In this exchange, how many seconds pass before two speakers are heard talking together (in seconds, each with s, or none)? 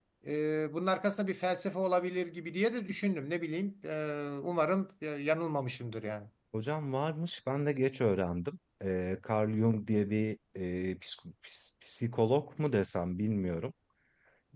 none